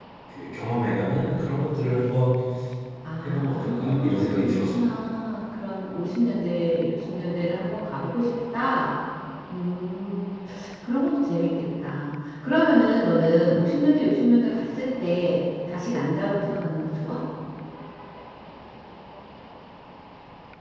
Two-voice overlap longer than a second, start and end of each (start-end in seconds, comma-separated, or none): 3.2-4.7